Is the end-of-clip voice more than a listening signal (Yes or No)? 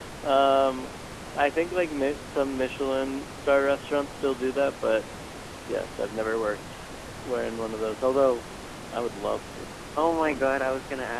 Yes